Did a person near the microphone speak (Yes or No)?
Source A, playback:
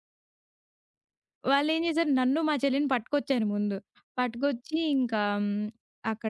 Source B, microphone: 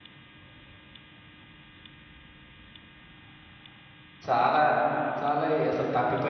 Yes